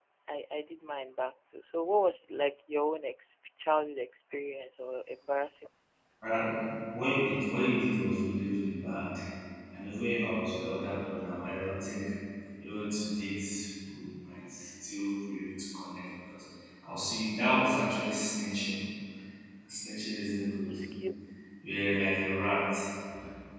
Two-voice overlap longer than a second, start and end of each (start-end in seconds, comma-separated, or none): none